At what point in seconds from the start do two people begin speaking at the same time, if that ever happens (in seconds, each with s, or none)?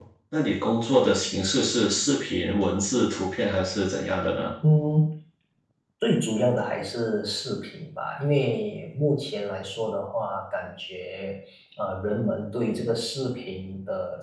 none